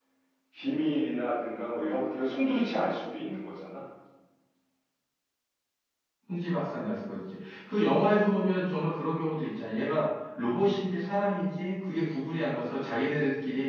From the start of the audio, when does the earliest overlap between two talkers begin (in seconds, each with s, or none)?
none